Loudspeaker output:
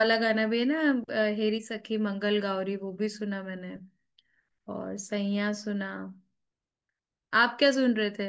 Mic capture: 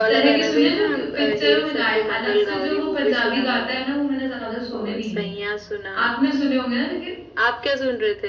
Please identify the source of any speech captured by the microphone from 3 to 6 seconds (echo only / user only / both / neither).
both